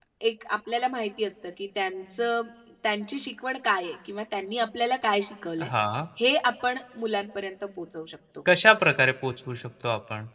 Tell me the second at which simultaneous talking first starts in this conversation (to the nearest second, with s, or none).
none